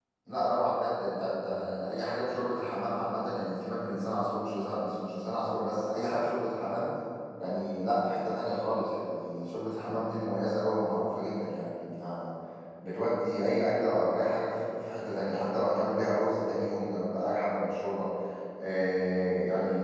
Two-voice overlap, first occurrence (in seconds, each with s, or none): none